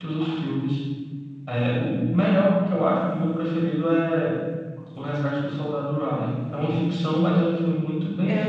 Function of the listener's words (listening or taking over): taking over